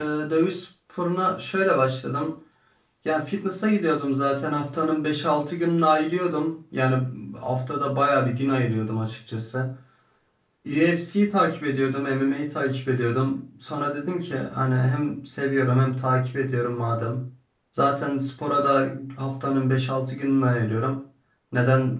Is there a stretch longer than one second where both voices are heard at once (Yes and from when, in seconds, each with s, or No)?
No